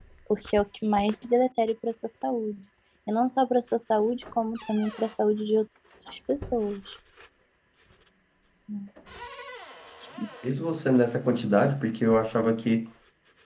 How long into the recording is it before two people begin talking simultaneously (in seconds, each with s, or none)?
none